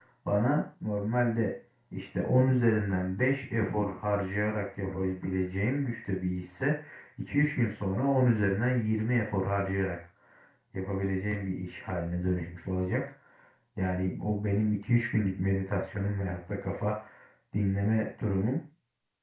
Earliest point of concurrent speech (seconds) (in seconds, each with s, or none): none